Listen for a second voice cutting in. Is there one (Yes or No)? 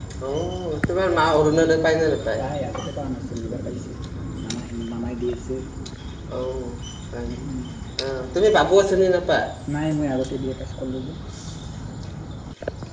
No